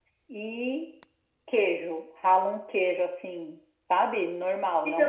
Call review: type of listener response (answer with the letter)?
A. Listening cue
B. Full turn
A